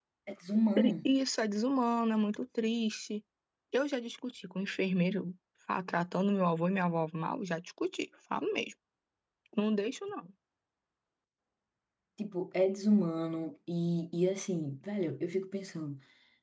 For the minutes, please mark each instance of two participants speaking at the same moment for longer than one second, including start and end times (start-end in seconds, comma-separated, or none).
none